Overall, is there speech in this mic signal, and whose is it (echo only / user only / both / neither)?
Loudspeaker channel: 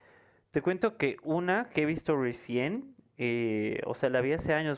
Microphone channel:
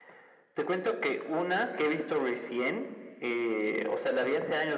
echo only